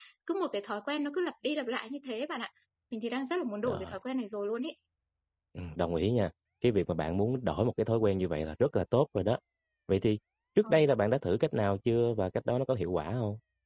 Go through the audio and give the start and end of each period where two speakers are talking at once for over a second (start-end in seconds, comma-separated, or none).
none